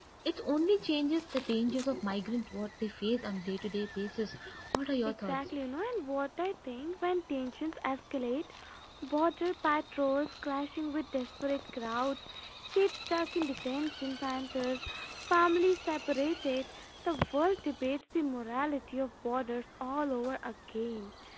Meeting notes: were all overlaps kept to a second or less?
Yes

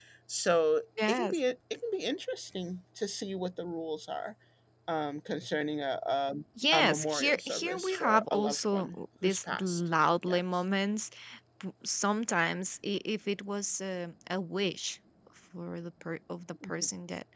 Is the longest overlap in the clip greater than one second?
Yes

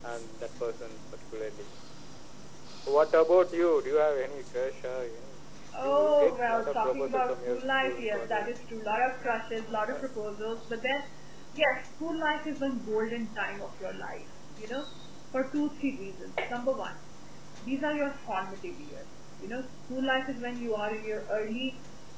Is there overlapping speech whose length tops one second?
Yes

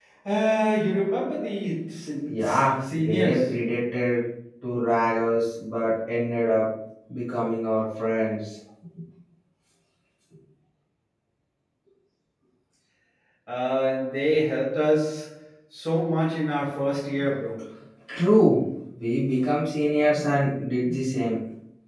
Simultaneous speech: Yes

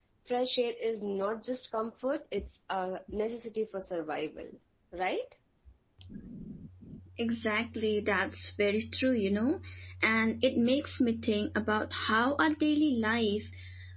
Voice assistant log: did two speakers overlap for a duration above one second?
No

